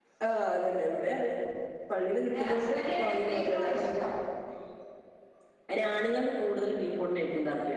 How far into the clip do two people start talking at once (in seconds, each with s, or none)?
2.2 s